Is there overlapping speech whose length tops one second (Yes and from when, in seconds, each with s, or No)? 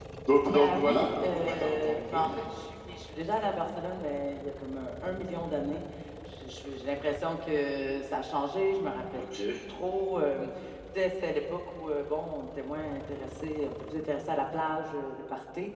Yes, from 0.5 s